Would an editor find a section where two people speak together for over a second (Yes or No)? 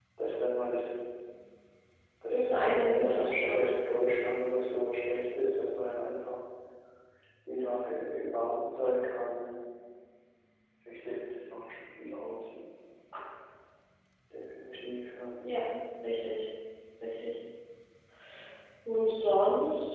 Yes